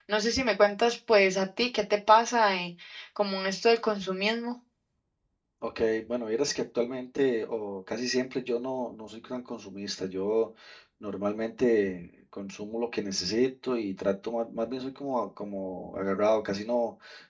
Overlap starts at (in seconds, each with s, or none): none